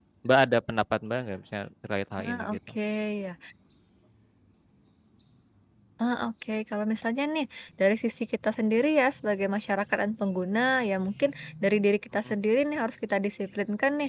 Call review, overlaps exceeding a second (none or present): none